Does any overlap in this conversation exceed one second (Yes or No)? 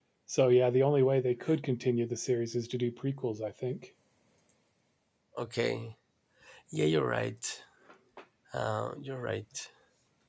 No